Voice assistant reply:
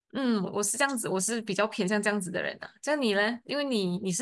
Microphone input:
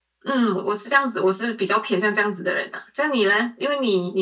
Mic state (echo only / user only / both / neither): echo only